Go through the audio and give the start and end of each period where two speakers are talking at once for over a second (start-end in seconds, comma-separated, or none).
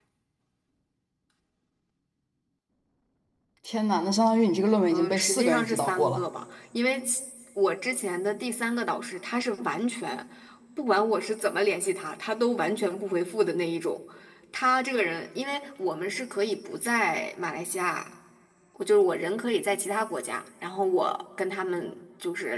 4.9-6.2